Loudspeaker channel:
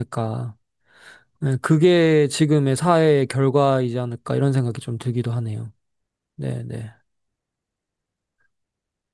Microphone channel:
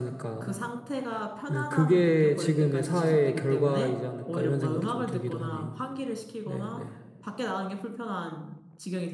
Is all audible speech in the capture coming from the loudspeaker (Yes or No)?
No